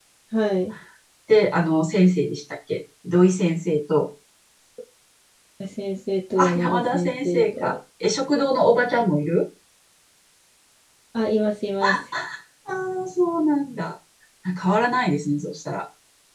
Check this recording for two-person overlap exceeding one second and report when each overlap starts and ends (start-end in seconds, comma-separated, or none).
6.4-7.8